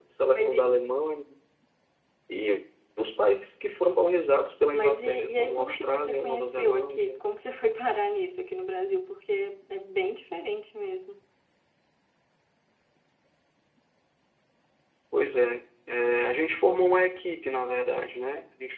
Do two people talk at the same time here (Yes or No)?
Yes